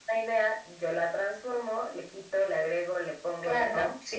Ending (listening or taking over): taking over